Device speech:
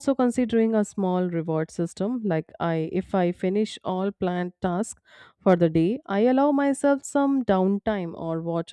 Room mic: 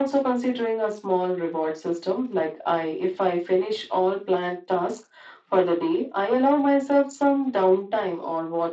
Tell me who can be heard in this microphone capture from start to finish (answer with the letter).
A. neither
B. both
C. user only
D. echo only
D